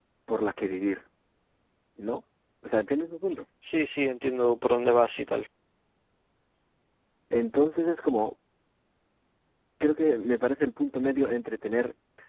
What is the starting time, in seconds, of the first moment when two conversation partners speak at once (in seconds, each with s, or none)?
none